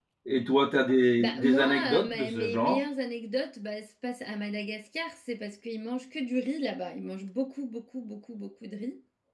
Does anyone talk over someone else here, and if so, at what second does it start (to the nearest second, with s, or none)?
1 s